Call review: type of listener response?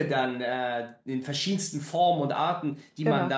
listening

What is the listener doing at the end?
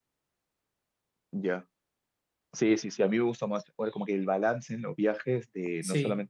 listening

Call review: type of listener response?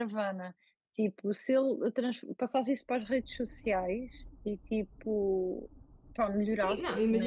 taking over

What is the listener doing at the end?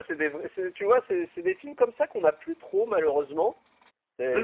listening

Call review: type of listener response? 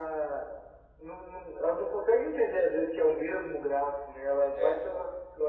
listening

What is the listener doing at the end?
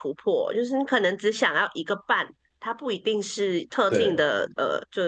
listening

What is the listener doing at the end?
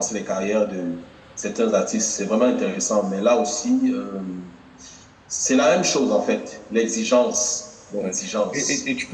taking over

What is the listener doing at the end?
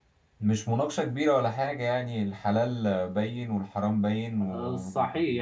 taking over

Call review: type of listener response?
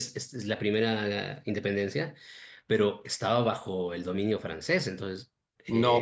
taking over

